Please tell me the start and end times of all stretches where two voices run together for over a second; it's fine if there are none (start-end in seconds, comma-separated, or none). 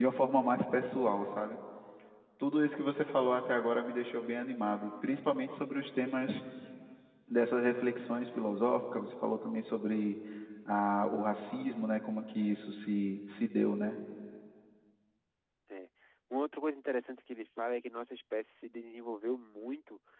none